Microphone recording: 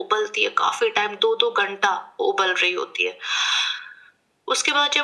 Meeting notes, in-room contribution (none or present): none